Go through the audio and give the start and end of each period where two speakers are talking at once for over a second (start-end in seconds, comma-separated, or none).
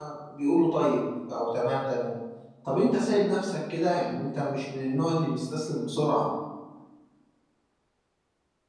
none